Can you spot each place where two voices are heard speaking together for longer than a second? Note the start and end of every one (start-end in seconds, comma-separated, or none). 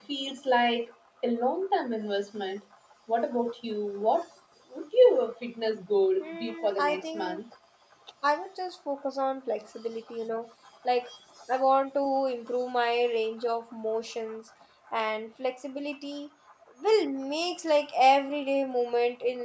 6.2-7.4